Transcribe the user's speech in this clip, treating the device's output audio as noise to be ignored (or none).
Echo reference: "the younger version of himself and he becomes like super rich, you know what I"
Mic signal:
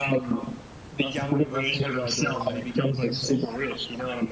that's a good that's a good idea, mate.